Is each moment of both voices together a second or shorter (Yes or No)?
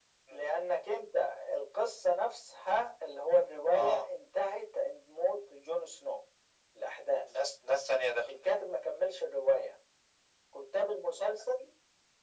Yes